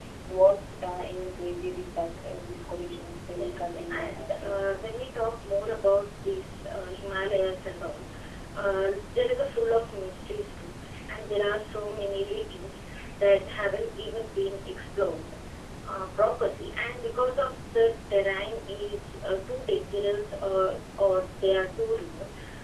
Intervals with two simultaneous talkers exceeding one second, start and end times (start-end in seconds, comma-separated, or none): 3.4-4.6